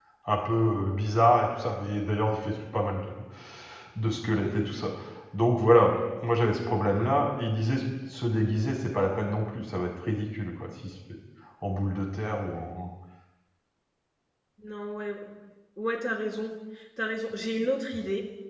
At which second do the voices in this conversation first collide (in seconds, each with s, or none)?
none